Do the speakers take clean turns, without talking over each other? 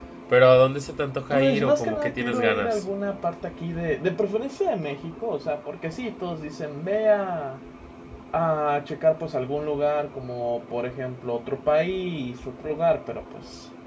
No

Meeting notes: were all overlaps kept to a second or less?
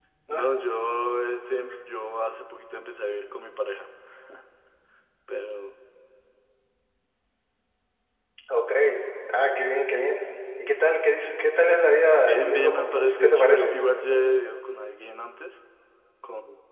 No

